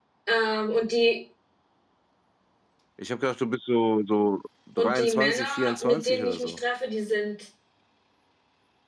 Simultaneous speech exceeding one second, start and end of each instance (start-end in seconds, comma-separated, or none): 4.8-6.6